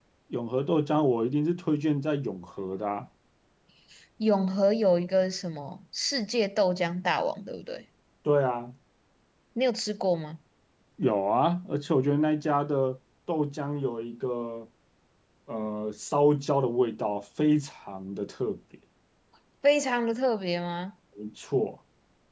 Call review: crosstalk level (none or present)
none